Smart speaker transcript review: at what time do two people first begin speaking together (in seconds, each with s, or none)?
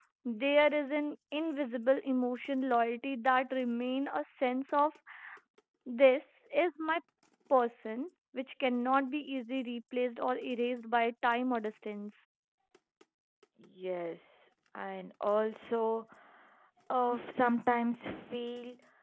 none